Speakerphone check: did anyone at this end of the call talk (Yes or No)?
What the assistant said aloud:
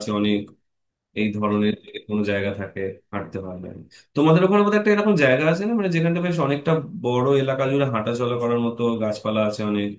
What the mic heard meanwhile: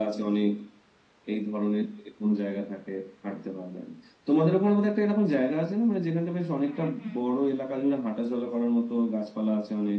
Yes